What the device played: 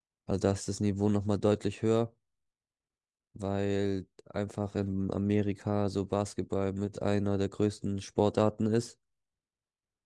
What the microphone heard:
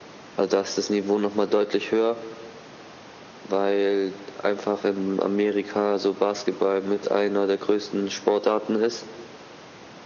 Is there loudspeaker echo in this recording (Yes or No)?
Yes